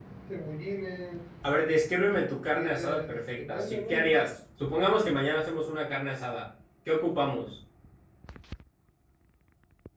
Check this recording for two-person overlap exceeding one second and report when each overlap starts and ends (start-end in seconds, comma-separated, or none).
2.5-4.2